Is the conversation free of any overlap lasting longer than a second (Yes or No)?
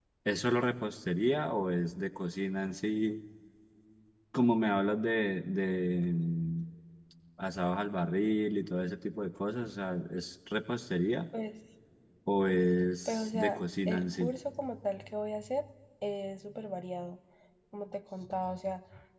No